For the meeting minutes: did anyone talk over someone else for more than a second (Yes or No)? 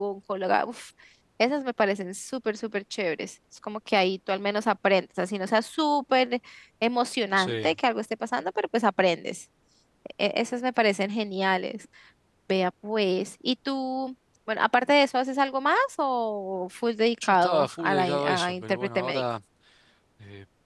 Yes